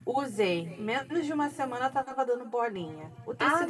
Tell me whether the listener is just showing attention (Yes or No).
Yes